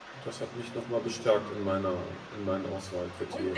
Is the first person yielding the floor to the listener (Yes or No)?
Yes